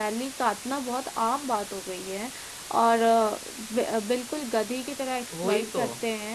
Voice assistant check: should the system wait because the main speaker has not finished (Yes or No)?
Yes